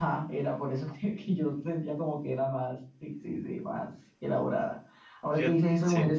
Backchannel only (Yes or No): Yes